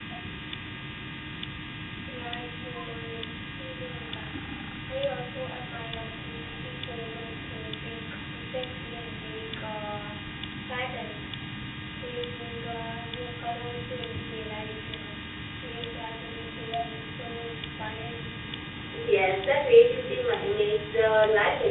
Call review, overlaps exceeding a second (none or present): none